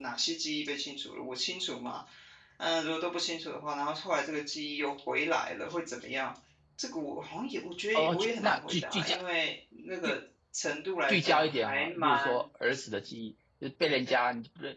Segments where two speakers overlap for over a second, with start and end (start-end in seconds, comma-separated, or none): 7.9-9.2, 11.1-12.4